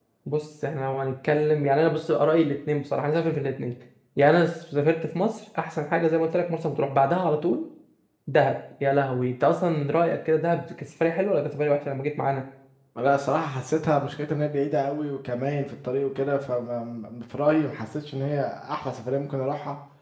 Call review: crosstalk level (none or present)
none